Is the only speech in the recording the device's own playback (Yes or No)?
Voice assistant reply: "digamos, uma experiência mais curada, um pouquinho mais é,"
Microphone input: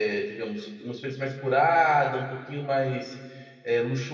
Yes